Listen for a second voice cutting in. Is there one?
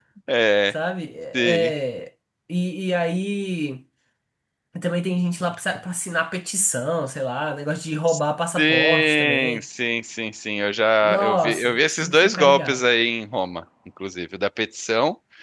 Yes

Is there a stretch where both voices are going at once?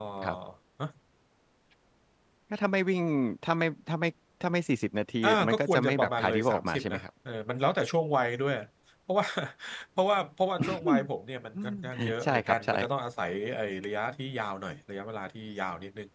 Yes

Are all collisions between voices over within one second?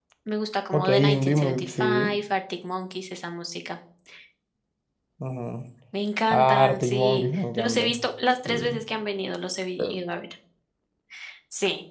No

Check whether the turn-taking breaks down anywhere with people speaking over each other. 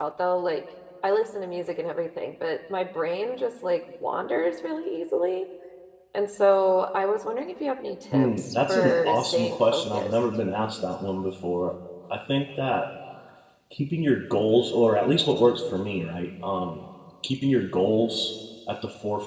Yes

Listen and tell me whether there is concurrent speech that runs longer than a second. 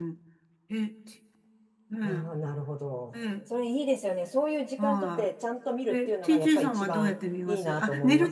Yes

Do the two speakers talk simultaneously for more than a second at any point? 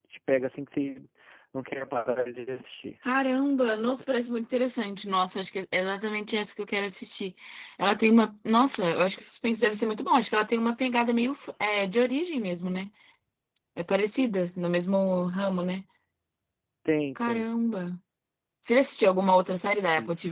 No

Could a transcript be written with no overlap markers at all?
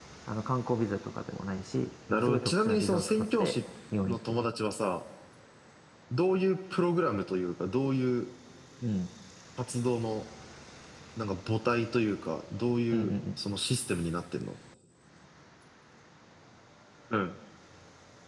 No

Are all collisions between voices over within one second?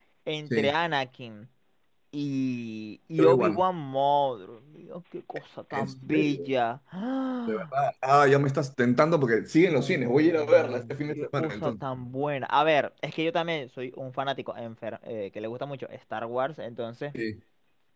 No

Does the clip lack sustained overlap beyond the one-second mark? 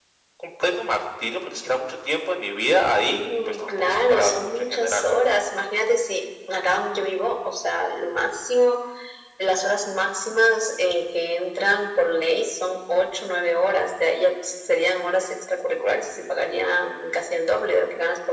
No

